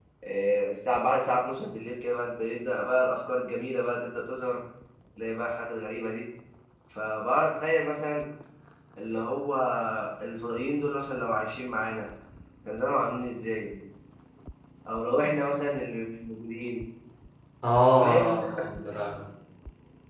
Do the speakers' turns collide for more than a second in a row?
Yes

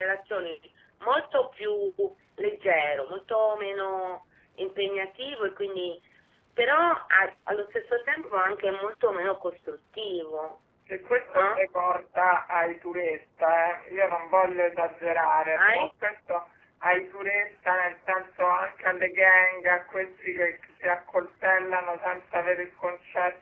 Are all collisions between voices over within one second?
Yes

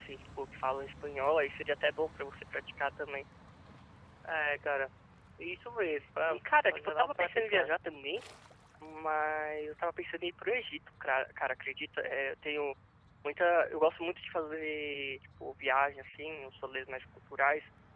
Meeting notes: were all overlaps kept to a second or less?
No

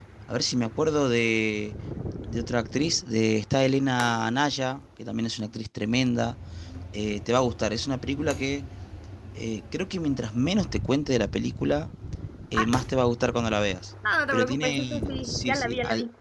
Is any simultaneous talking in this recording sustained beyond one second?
Yes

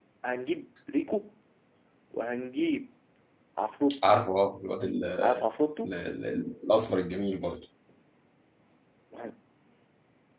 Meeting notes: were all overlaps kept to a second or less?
Yes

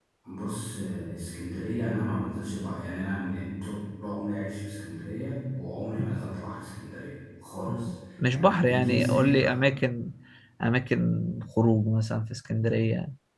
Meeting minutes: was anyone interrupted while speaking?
Yes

